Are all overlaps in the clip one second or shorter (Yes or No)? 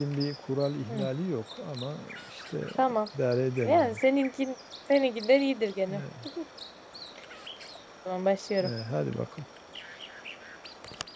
Yes